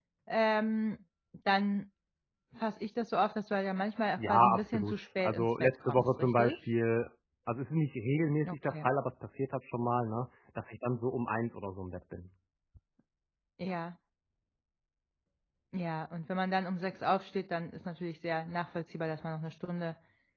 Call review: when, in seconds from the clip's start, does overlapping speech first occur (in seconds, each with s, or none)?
4.2 s